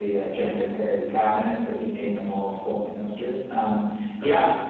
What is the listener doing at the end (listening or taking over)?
listening